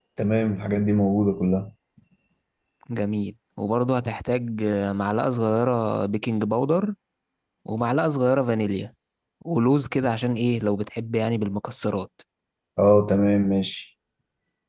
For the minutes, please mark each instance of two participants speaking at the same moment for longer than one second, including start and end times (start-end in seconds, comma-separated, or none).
none